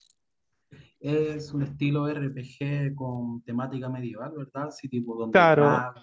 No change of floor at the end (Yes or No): No